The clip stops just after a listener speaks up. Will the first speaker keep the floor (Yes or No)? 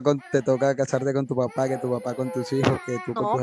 No